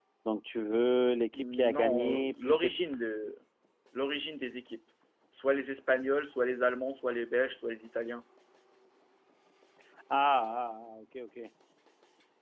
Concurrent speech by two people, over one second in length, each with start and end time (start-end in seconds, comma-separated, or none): 1.3-2.9